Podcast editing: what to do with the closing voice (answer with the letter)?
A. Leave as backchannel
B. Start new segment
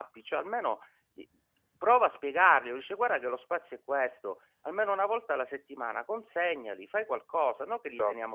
A